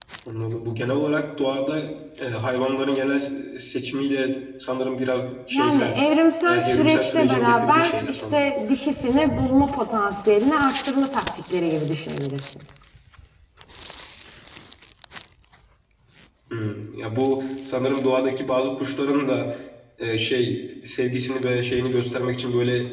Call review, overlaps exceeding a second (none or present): present